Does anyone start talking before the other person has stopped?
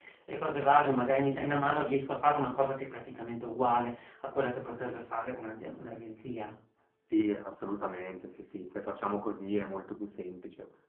No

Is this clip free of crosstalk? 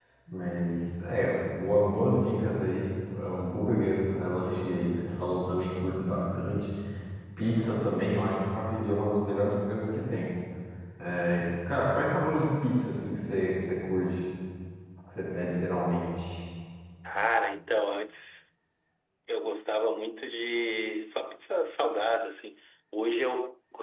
Yes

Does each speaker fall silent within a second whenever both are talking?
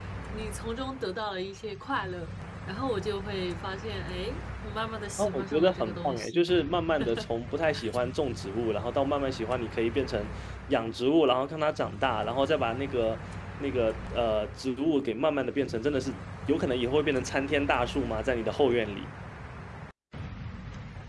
No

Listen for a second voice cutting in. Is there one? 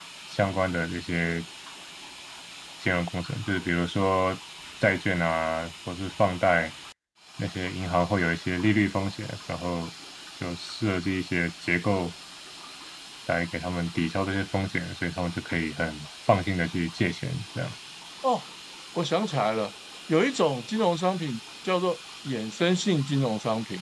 No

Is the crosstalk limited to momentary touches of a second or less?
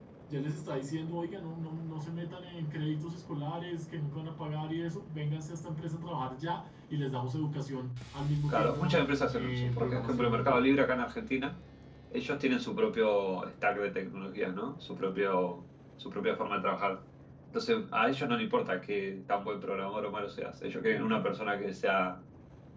No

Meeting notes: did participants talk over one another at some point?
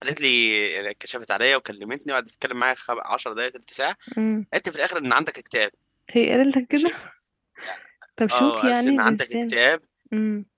Yes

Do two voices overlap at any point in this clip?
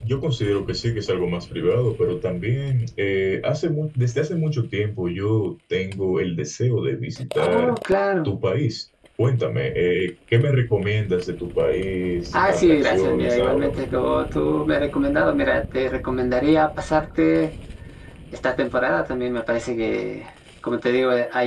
Yes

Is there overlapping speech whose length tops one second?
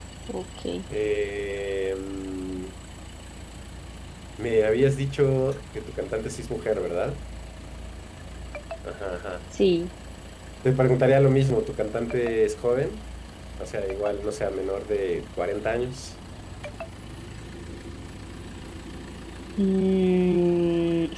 No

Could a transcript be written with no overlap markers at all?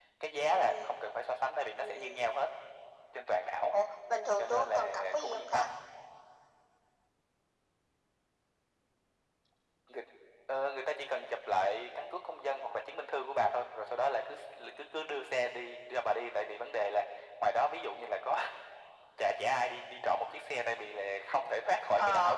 No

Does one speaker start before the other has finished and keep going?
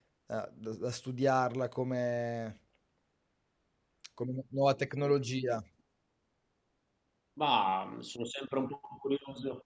No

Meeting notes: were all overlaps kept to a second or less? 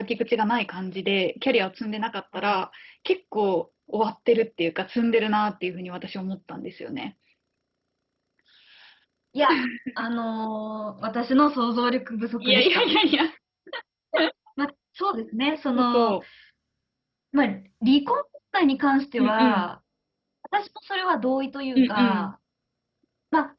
Yes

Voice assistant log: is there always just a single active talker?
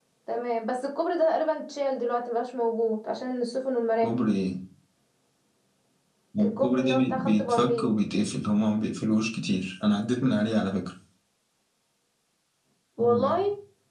No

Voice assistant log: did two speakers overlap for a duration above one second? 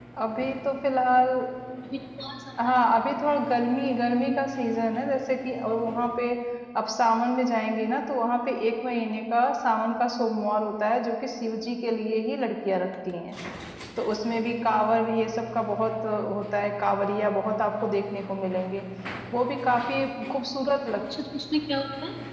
No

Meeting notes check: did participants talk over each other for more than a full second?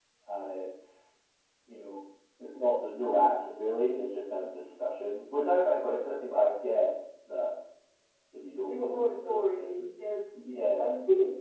Yes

